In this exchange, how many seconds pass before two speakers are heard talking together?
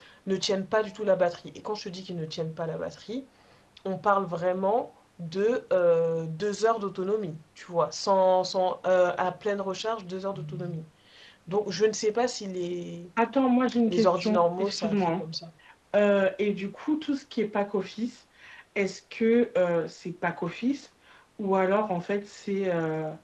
13.9 s

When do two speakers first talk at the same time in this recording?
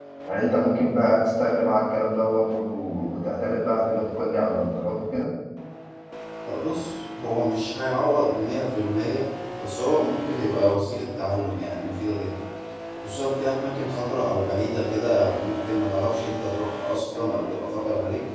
none

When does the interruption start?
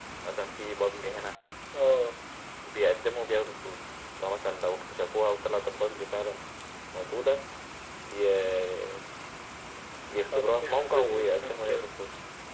10.3 s

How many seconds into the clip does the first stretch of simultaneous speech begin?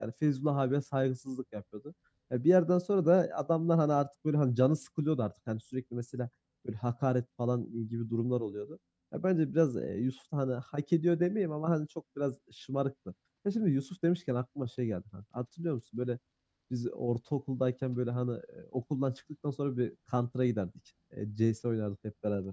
none

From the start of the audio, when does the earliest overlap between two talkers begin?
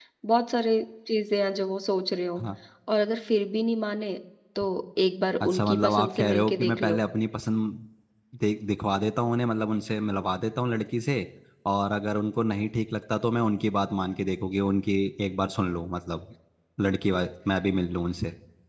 5.4 s

